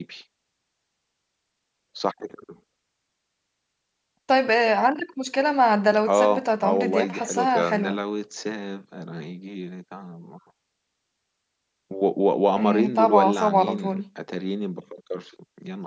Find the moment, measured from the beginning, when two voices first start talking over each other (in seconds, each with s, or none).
6.1 s